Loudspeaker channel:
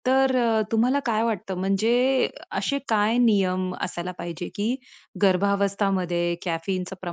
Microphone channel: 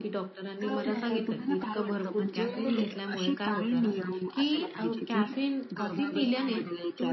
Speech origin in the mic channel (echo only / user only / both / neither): both